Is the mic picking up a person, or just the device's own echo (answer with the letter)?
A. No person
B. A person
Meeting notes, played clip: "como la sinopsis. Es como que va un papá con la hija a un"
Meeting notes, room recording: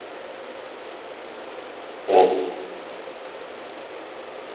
B